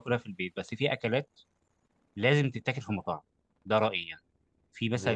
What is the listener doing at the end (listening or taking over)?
listening